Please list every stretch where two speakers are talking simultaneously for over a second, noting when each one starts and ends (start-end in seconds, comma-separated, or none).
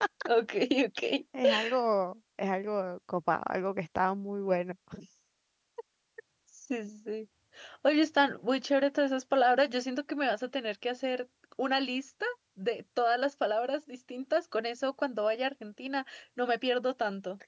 none